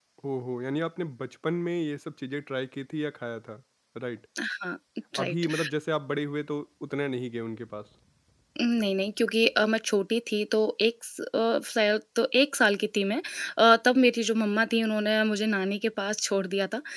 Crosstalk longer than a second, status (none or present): none